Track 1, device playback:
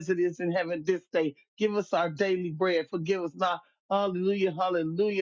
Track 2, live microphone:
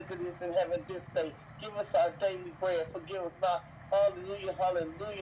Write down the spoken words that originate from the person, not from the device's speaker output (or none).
none